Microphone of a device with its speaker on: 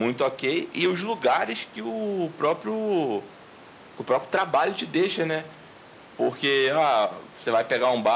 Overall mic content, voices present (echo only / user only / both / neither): echo only